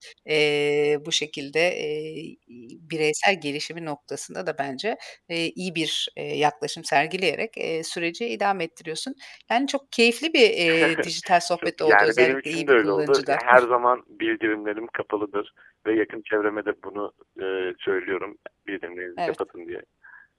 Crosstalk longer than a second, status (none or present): present